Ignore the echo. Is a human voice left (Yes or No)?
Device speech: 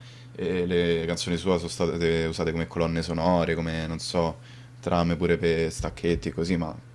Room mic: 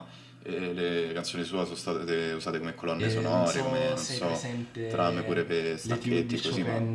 Yes